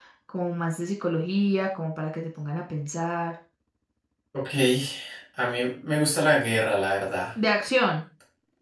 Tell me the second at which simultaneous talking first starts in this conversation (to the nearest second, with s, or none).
none